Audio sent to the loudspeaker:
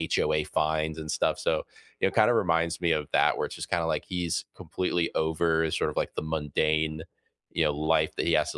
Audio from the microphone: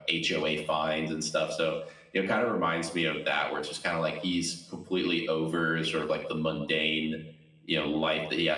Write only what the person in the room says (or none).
none